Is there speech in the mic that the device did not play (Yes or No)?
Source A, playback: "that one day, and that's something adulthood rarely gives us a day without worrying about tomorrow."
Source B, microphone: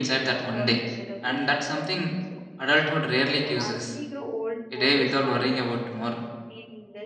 Yes